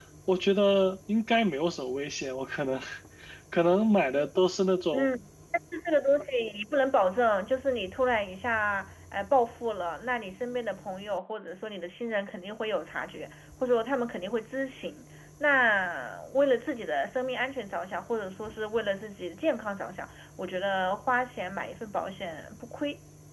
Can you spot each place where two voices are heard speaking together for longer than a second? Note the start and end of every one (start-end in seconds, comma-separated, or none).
none